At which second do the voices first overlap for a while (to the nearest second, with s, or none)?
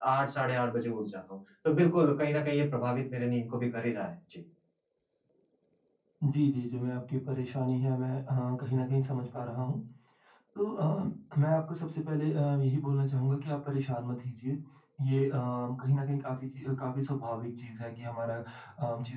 none